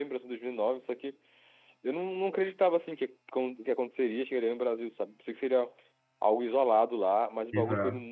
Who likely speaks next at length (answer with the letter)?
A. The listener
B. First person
B